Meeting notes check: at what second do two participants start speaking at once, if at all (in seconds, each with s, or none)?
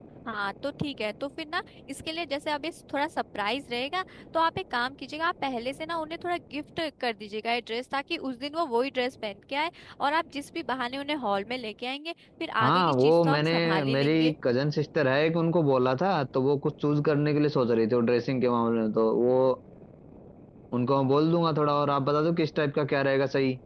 12.6 s